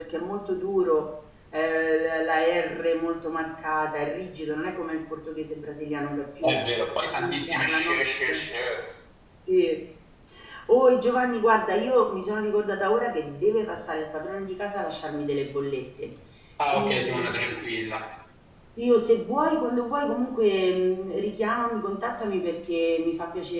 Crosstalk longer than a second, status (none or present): present